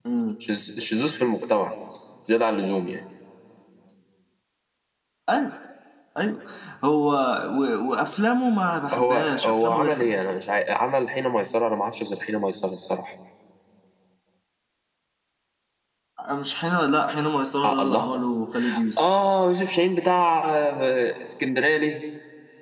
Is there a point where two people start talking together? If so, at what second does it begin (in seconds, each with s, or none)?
8.9 s